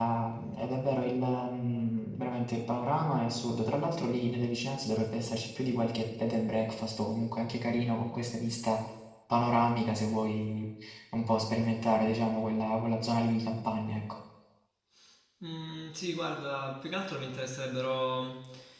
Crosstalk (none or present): none